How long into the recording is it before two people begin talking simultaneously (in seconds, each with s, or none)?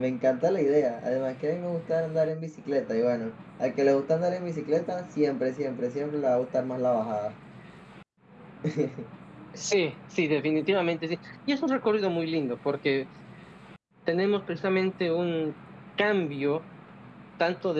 none